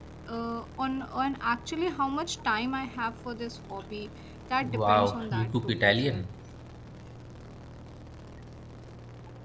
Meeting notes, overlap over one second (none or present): present